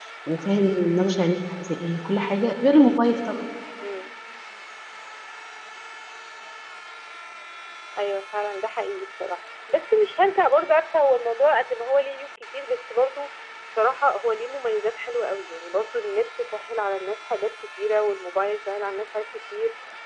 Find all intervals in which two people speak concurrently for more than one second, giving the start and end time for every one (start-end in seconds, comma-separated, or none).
none